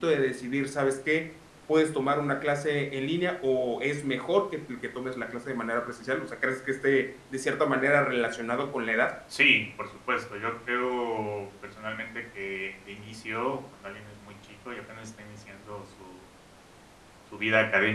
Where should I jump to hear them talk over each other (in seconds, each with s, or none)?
none